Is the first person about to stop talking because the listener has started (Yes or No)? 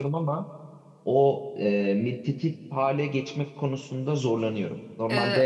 Yes